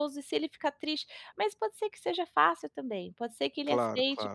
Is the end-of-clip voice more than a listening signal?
No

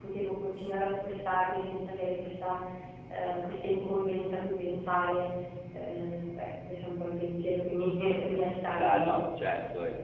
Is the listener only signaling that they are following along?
No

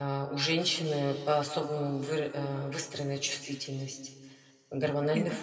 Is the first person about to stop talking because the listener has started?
No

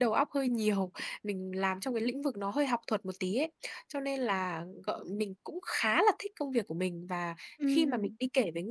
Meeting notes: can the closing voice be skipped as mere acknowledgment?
Yes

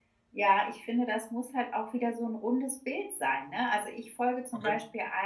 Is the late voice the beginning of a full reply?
No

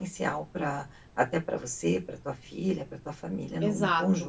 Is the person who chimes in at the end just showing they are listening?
No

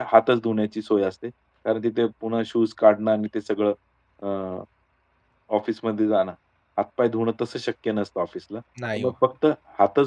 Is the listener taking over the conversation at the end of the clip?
No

